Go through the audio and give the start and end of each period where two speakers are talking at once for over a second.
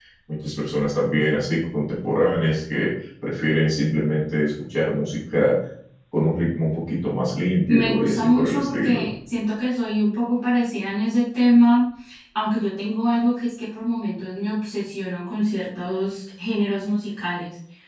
7.7-9.0

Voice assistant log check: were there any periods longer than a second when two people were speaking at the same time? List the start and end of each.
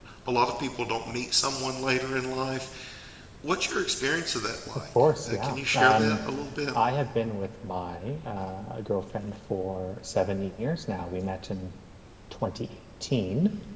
5.0-6.2

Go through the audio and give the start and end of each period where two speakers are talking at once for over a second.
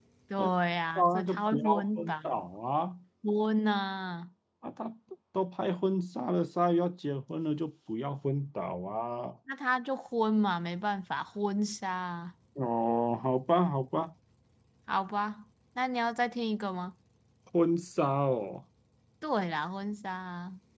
0.9-2.5

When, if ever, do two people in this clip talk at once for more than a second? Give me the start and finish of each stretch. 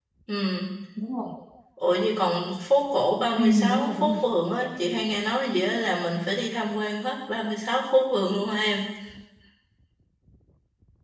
3.4-4.7

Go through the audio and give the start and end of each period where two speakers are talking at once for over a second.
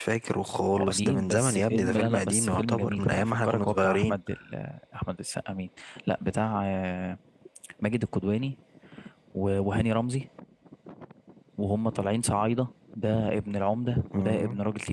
0.7-4.2

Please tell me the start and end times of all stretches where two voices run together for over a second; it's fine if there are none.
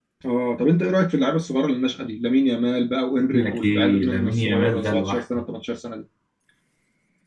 3.3-5.4

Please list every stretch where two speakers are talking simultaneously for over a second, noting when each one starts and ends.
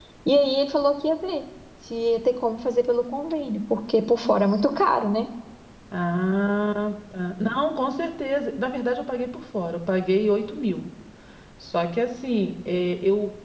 none

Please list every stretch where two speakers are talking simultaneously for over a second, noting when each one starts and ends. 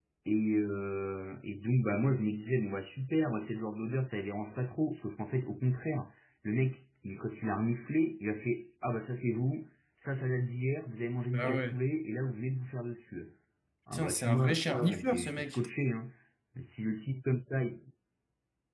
13.9-15.6

